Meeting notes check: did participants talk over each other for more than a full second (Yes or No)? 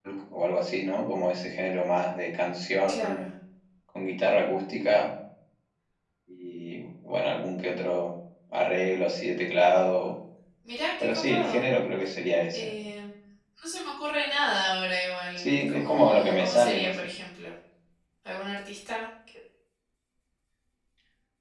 Yes